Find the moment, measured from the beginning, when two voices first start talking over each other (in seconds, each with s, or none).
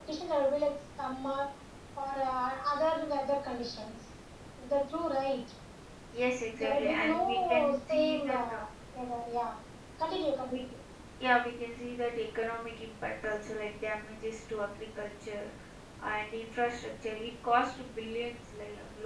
6.6 s